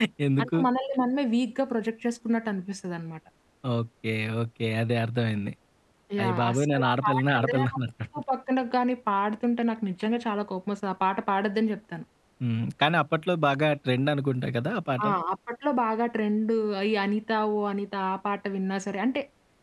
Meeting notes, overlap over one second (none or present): present